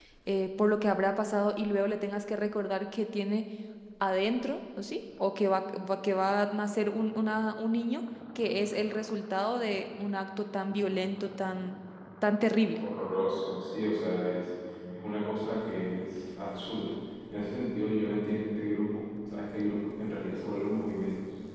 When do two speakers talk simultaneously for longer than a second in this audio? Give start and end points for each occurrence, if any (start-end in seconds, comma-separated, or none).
none